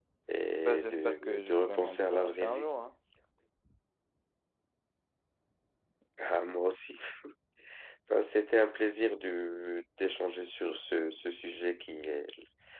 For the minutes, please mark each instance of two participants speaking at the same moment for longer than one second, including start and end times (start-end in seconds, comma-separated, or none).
0.6-2.7